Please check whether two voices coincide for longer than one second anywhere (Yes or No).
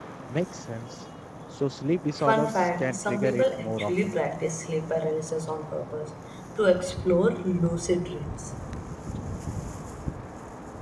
Yes